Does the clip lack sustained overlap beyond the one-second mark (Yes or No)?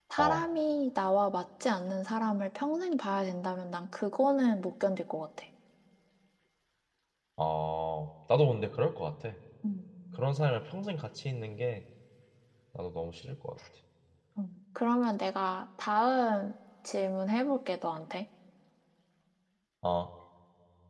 Yes